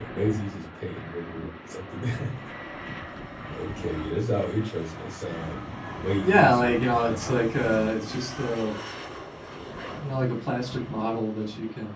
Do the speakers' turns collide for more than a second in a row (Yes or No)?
Yes